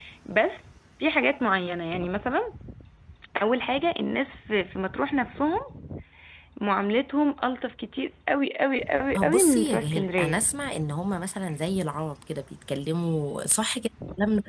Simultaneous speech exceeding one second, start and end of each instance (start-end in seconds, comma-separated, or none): 9.2-10.4